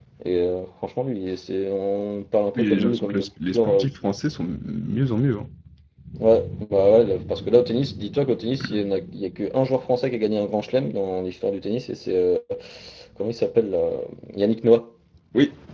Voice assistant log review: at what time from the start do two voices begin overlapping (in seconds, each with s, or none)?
2.5 s